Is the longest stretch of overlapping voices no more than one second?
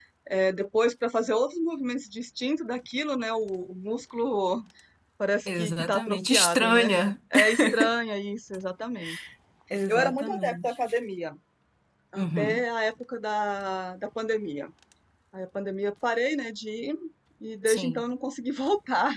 No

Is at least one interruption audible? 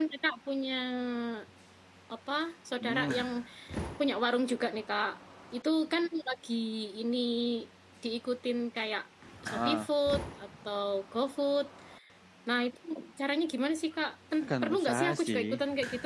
Yes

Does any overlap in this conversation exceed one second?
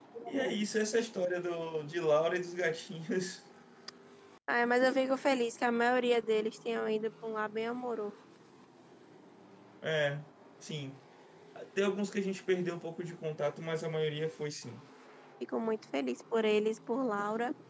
No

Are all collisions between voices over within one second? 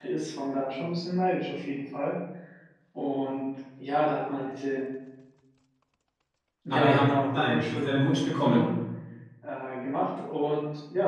No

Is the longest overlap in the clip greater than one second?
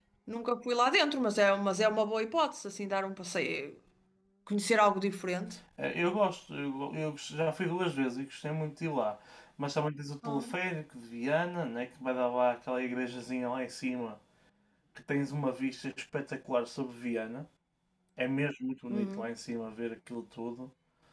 No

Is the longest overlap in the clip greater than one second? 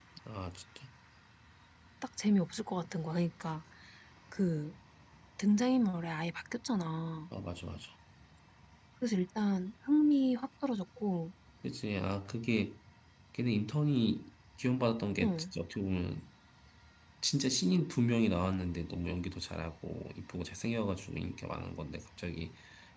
No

